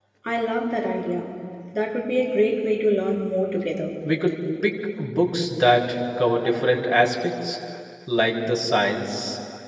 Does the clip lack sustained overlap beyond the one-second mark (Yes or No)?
Yes